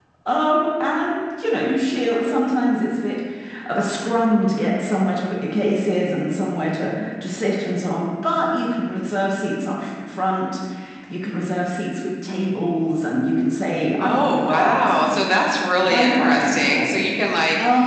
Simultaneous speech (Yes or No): Yes